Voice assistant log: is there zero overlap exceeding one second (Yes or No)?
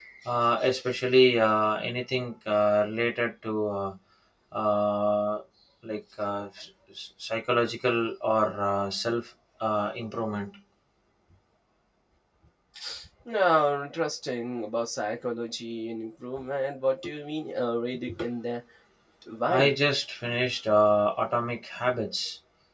Yes